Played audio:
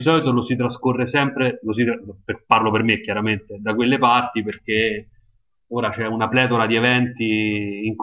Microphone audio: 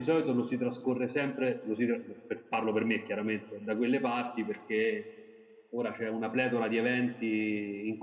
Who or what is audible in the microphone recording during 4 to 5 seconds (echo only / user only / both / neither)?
echo only